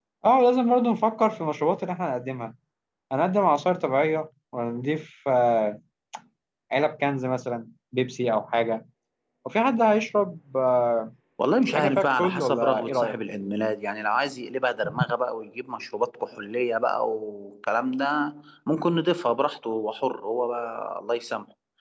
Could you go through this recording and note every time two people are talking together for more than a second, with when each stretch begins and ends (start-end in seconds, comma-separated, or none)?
11.7-13.1